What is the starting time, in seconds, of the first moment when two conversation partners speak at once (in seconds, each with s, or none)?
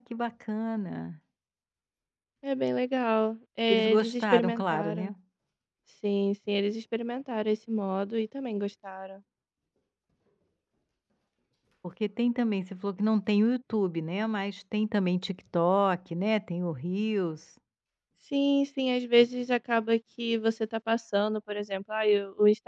3.7 s